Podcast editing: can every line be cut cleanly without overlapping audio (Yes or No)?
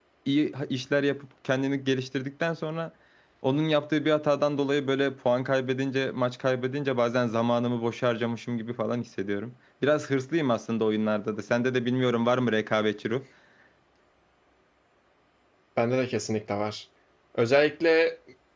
Yes